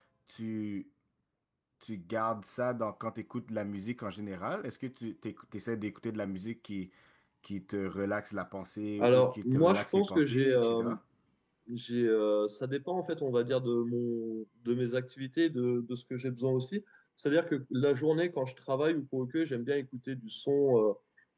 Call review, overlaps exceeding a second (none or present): present